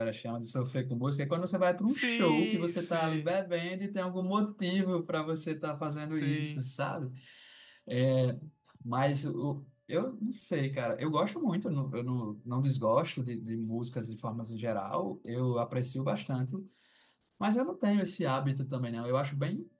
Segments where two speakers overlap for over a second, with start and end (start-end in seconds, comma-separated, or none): 1.9-3.4